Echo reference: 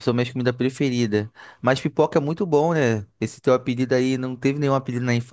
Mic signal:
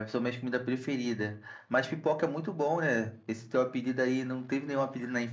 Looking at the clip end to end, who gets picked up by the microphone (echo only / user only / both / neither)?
echo only